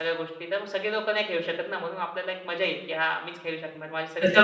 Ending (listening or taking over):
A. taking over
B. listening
A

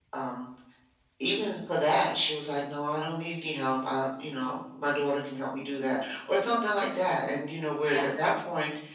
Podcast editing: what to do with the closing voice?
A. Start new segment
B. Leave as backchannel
B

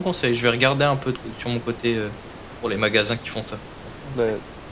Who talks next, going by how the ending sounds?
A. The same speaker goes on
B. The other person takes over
B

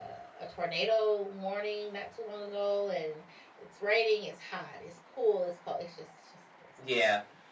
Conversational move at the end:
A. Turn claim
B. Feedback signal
A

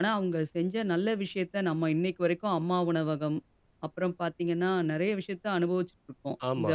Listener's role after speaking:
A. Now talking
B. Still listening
A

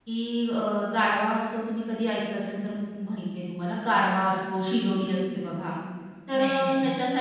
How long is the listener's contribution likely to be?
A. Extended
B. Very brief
B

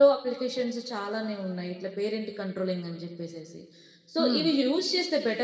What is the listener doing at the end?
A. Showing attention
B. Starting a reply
A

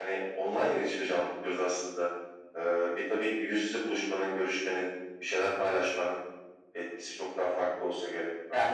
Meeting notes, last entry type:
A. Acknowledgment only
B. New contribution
B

